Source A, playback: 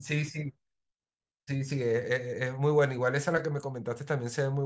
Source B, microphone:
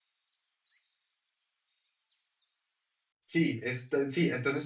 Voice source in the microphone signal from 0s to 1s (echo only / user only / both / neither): neither